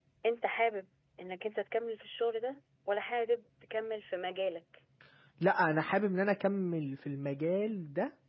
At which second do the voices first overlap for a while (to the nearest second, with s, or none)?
none